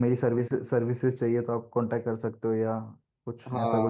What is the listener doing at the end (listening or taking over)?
taking over